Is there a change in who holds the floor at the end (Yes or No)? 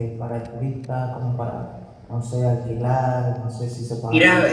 Yes